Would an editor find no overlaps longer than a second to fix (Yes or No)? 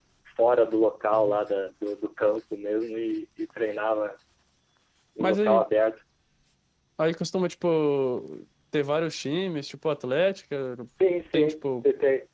Yes